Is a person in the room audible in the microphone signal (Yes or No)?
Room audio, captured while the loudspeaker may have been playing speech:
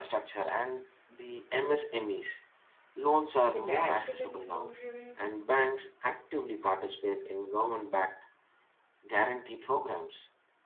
Yes